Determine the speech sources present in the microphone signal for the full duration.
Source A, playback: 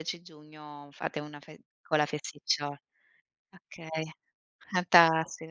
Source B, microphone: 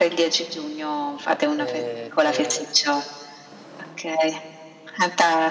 both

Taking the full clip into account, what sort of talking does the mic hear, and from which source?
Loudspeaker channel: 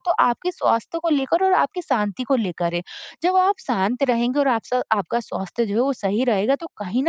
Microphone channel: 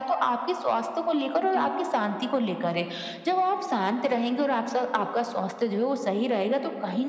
both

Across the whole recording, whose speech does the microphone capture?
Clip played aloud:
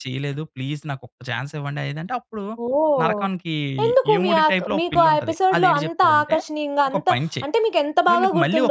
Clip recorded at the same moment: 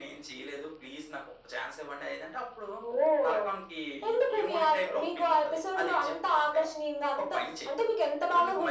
echo only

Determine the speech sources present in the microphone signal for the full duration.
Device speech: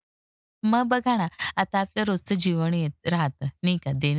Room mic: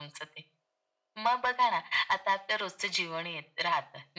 echo only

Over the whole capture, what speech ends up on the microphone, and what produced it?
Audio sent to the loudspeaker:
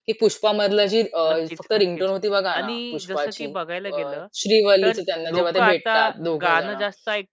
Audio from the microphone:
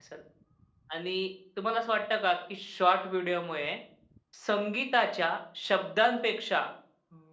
user only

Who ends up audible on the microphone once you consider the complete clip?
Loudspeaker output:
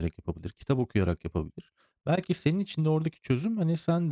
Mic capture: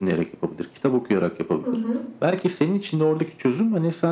both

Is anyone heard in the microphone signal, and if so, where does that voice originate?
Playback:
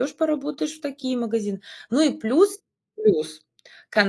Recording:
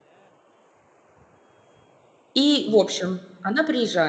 user only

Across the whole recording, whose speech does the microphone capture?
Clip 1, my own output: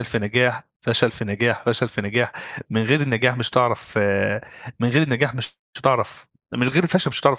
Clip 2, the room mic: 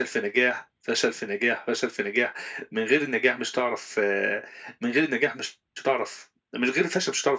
echo only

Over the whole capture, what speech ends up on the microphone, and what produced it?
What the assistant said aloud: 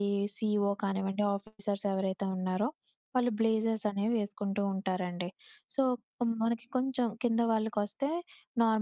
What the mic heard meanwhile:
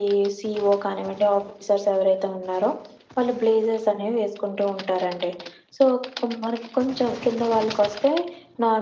echo only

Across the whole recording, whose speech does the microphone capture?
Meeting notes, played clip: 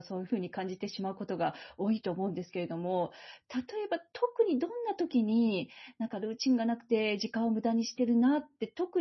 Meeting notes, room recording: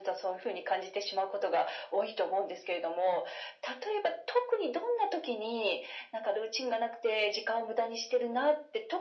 echo only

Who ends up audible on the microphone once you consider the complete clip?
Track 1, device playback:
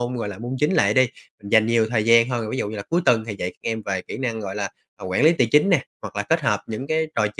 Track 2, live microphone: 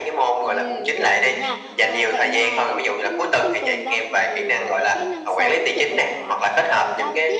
both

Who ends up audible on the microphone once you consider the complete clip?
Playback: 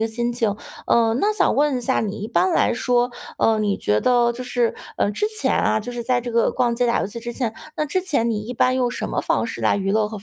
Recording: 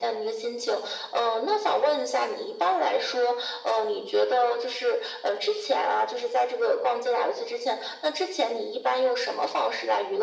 echo only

